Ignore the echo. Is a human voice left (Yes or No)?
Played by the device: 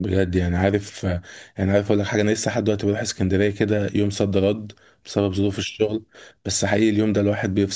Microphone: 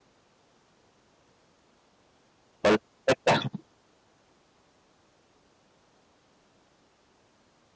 Yes